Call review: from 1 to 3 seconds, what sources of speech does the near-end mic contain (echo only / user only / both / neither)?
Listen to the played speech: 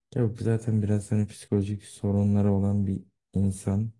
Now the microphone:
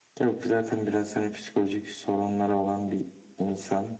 echo only